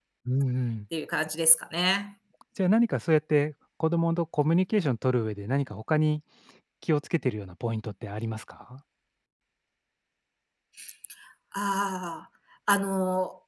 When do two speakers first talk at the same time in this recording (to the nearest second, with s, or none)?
none